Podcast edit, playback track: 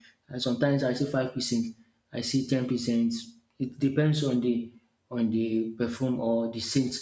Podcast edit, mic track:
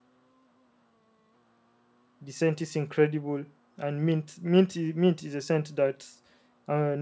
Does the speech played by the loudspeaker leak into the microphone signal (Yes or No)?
No